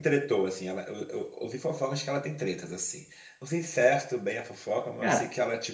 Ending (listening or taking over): listening